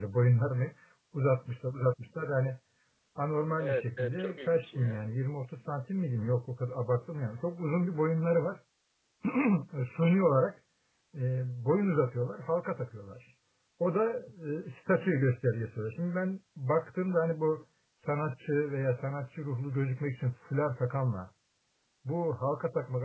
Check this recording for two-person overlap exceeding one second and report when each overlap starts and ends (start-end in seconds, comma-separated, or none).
3.6-5.0